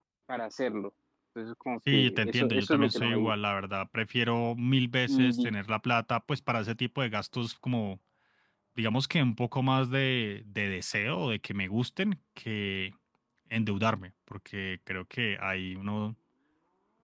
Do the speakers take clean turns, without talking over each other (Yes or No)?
No